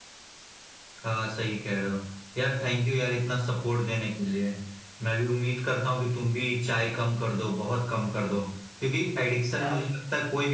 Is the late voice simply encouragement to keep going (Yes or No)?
Yes